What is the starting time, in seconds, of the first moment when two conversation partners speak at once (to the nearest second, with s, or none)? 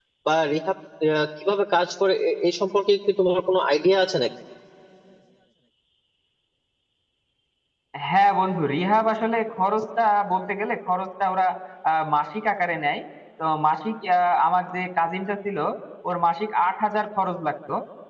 none